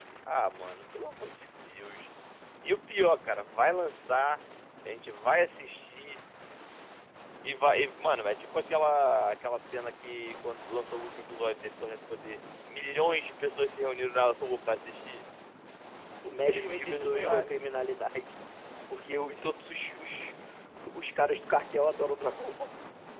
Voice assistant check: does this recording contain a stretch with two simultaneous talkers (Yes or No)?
Yes